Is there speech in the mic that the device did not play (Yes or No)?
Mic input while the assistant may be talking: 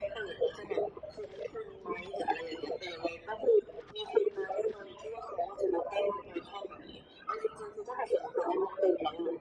No